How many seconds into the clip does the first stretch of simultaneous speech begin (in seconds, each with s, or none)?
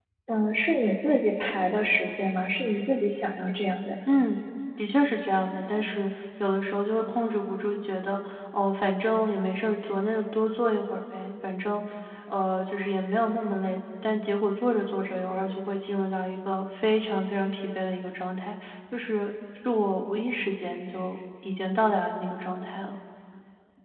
none